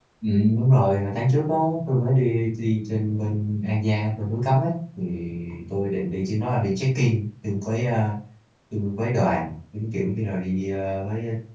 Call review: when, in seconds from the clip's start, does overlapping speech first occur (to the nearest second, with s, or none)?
none